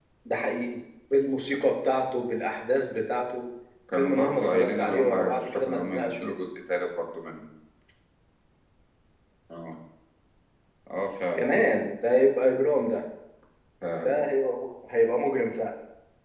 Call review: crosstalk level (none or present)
present